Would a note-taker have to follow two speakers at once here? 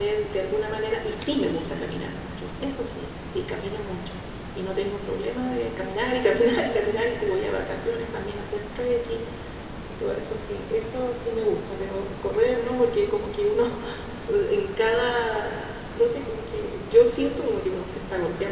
No

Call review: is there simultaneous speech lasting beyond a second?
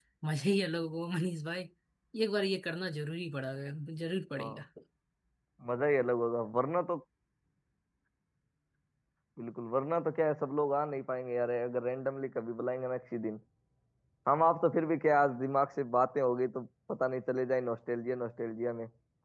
No

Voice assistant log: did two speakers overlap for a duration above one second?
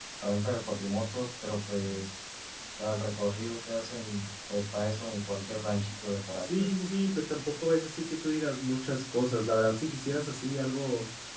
No

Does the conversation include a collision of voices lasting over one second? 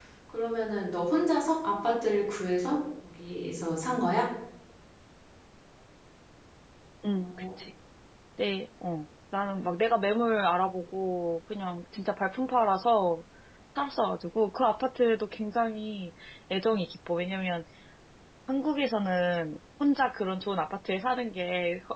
No

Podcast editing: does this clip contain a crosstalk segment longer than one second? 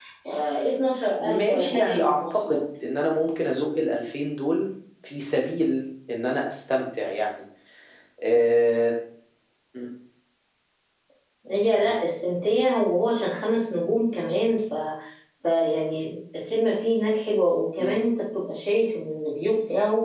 Yes, from 1.2 s

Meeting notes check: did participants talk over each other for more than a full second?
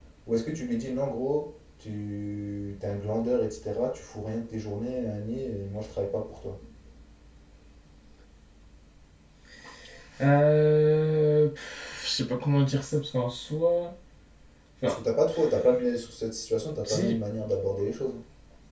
No

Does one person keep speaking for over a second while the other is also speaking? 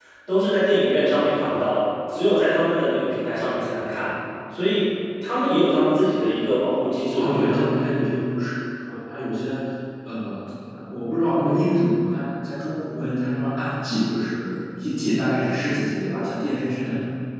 No

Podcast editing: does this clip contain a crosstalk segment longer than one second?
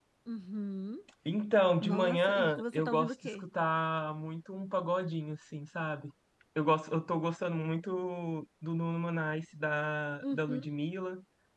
Yes, from 1.8 s

